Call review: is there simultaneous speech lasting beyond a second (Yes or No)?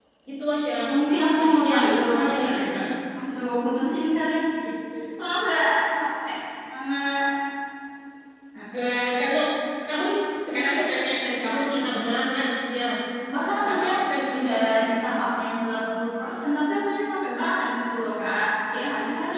Yes